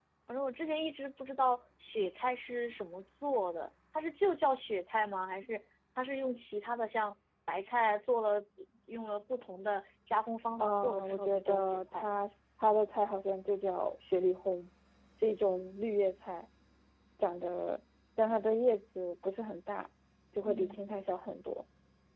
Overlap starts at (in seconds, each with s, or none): 10.6 s